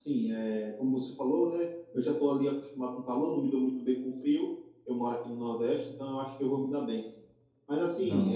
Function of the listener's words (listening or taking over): listening